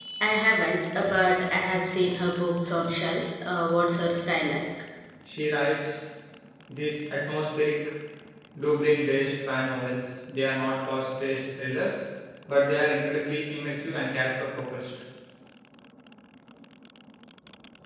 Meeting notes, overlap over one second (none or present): none